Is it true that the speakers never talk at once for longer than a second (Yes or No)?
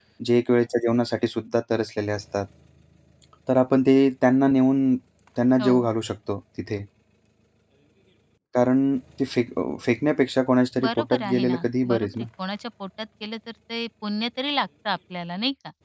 No